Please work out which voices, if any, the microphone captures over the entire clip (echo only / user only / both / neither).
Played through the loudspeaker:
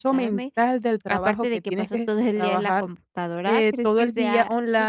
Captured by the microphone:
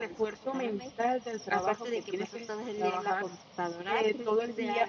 echo only